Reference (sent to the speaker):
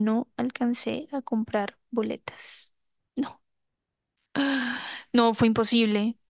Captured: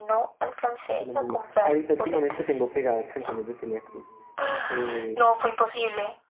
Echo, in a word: present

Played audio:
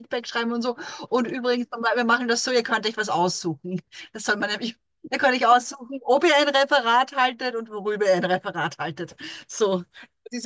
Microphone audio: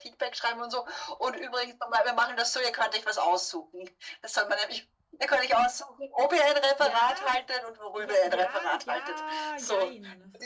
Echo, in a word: present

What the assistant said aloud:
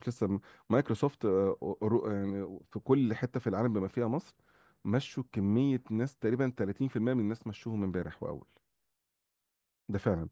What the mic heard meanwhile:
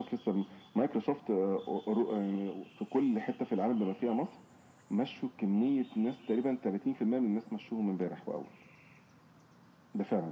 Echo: present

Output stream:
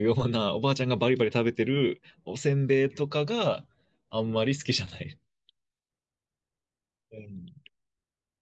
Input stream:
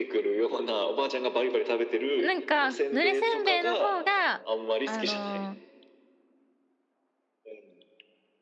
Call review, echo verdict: present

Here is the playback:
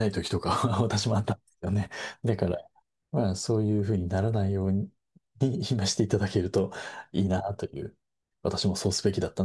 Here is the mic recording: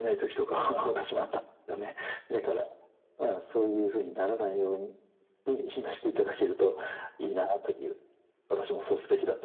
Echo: present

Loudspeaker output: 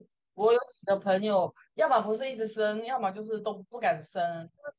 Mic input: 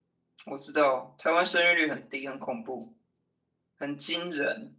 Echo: none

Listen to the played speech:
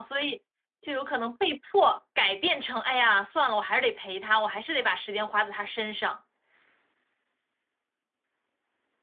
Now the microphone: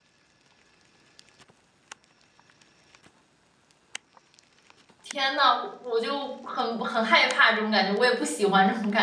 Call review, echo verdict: none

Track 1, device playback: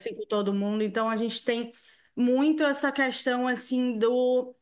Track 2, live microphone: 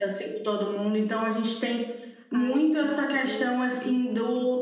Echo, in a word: present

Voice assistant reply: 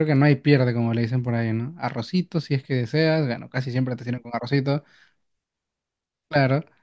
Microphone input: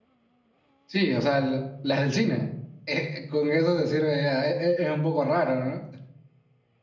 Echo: none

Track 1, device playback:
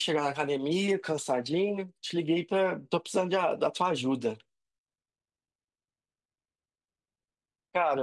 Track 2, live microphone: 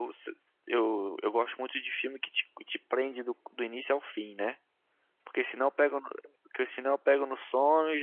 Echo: none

